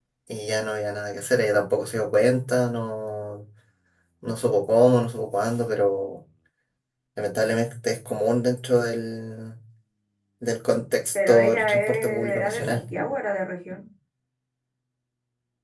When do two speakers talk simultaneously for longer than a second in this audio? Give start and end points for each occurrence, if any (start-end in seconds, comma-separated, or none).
11.3-12.8